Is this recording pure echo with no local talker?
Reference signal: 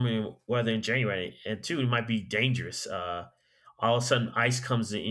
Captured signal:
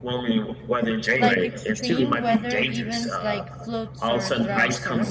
No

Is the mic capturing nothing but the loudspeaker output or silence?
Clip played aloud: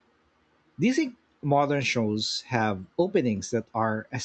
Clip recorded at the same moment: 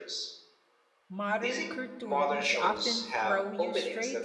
No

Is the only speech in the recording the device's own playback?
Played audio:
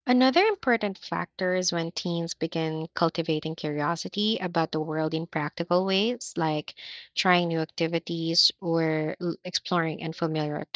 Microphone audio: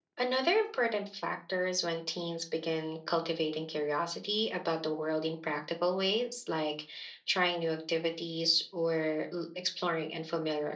Yes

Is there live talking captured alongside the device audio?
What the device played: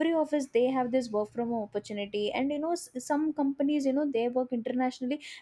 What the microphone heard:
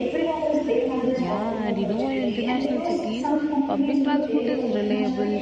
Yes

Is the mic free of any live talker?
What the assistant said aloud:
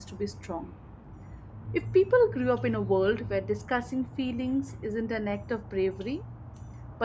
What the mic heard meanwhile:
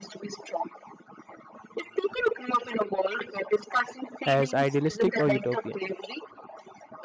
No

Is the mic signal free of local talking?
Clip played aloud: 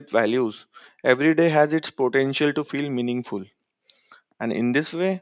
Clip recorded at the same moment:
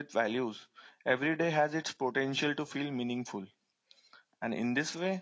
Yes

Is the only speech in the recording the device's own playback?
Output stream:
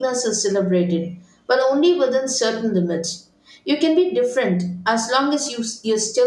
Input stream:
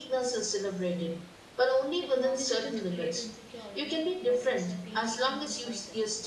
No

